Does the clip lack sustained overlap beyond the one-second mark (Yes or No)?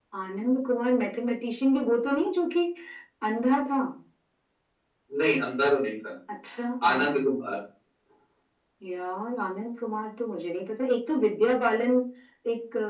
Yes